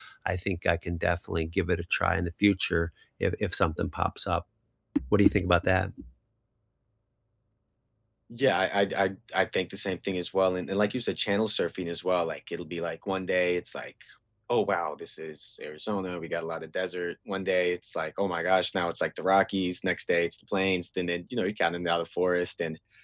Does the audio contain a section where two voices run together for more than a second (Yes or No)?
No